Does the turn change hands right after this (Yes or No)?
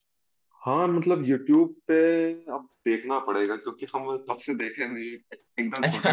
Yes